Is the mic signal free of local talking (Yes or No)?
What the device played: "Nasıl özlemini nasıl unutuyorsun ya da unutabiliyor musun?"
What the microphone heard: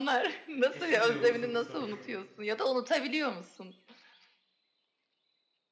No